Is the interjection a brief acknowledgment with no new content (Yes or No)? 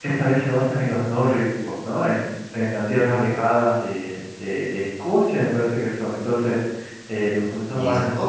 Yes